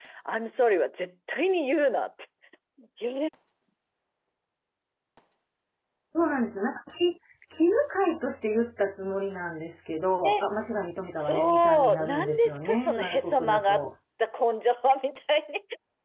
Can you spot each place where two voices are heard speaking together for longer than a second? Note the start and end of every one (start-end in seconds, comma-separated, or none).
11.1-13.8